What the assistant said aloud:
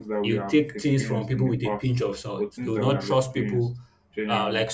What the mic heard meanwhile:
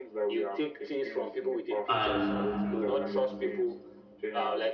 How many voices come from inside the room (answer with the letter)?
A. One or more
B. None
A